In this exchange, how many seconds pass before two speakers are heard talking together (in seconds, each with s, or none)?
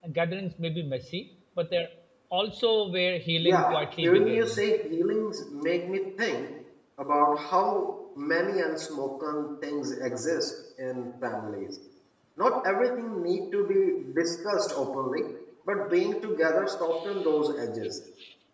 3.4 s